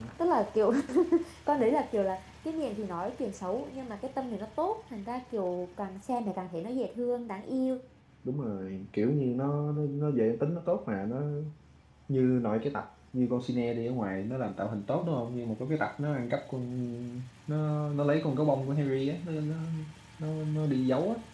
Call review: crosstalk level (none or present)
none